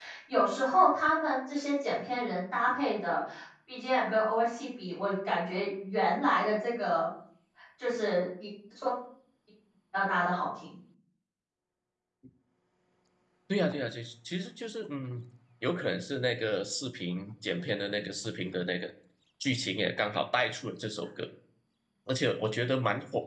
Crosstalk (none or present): none